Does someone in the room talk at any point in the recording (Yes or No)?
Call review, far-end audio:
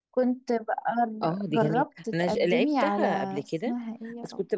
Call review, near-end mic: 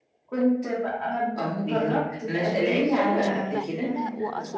Yes